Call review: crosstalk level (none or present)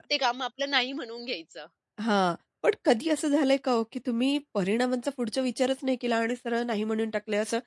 none